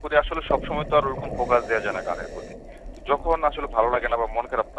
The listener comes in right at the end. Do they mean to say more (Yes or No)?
No